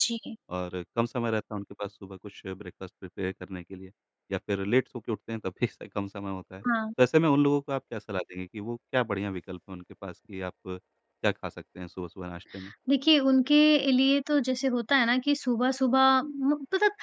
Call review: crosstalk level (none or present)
none